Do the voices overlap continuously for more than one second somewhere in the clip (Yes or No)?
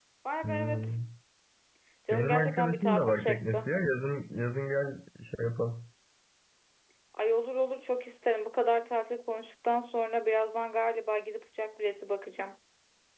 Yes